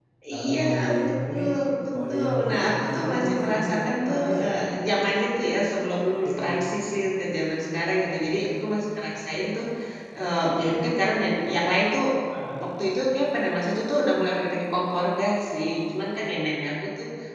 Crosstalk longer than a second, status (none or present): present